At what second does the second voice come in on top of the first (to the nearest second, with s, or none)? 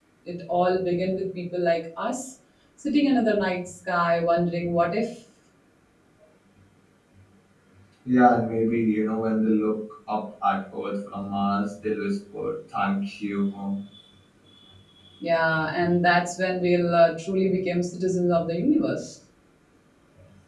none